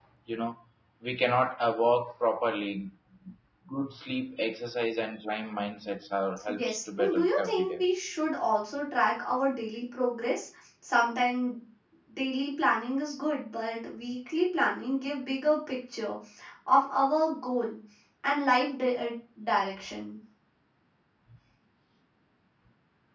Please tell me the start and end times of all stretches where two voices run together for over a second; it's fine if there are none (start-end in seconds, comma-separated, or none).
6.4-7.8